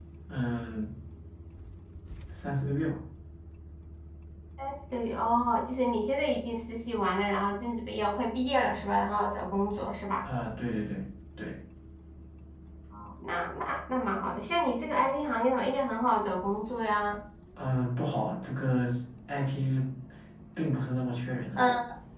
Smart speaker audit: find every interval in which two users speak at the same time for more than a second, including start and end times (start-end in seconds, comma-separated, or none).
none